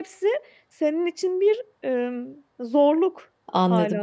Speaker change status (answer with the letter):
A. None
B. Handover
B